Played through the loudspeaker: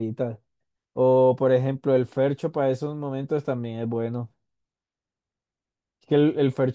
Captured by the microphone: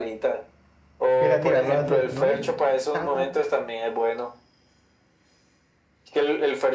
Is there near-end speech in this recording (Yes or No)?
Yes